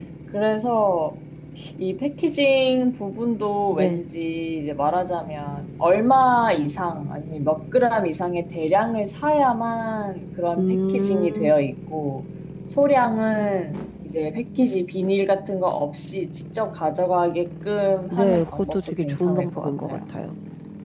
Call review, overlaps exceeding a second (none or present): present